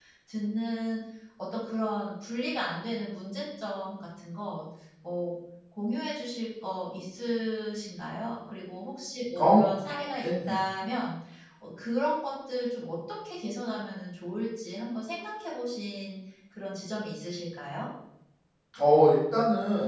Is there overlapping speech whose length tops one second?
No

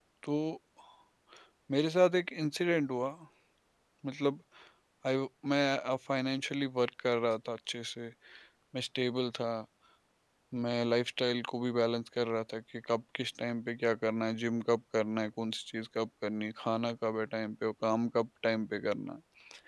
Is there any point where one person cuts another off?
No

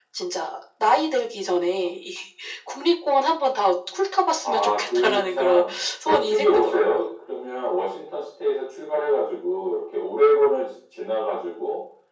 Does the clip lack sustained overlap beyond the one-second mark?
No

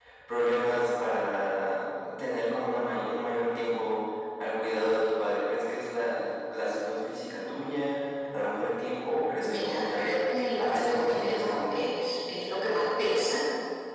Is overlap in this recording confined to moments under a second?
No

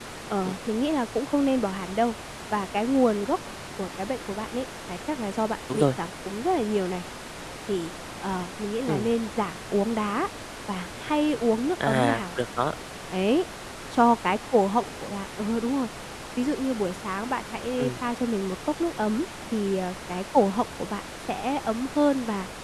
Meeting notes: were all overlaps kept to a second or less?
Yes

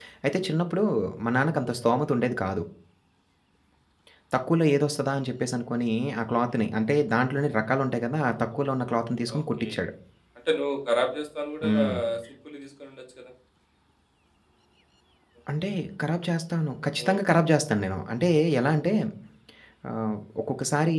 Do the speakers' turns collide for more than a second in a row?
No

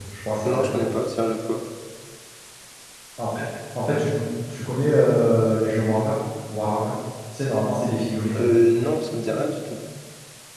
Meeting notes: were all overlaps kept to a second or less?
Yes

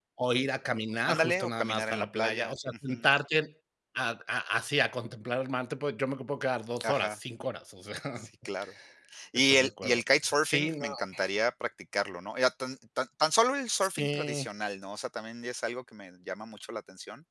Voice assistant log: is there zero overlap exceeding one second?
No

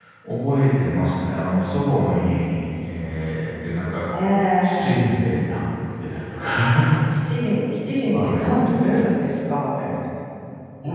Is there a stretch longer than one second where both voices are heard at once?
No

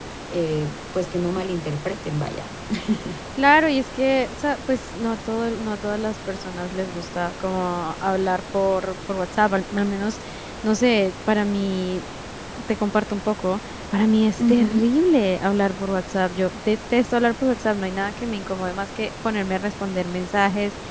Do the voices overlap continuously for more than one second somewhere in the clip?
No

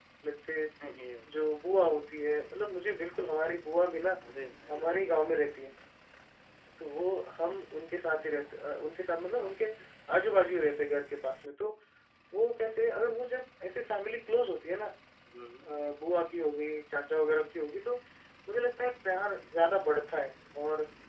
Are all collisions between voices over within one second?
Yes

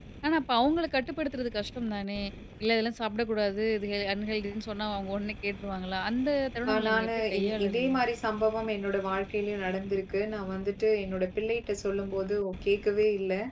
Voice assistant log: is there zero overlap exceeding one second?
No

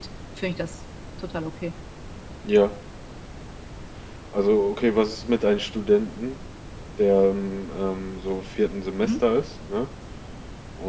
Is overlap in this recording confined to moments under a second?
Yes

